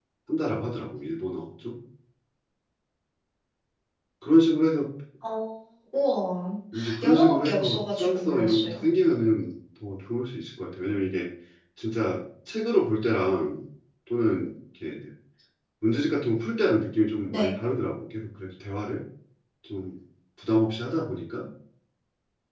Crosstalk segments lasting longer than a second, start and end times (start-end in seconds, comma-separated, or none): 7.0-8.9